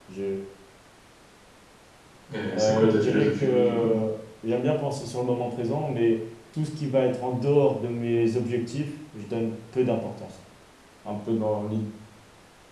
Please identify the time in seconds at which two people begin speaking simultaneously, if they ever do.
2.5 s

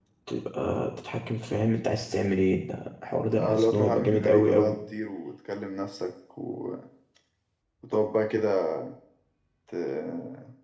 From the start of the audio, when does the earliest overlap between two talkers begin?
3.3 s

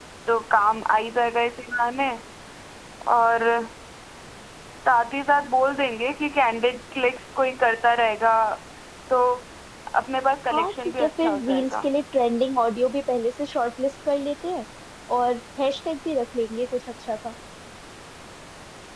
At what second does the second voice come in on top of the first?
10.5 s

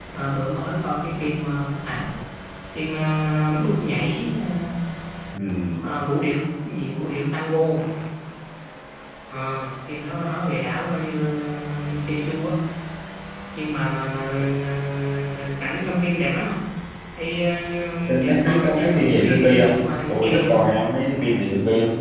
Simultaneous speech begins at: 18.1 s

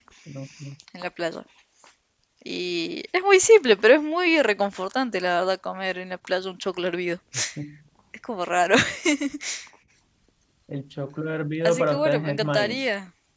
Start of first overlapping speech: 11.7 s

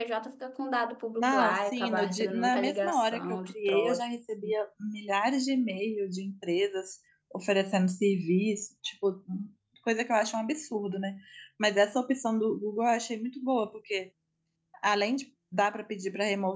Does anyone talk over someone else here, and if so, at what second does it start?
1.1 s

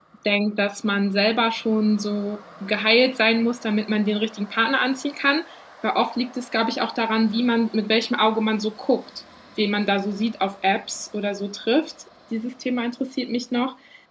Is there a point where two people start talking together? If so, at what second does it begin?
none

